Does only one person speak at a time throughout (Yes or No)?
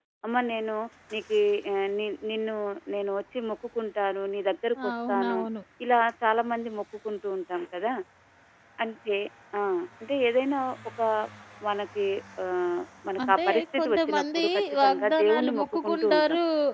No